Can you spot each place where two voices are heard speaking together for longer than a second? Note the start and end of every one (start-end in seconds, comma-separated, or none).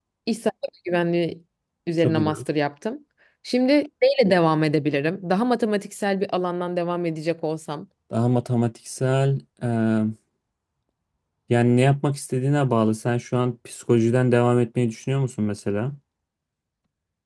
none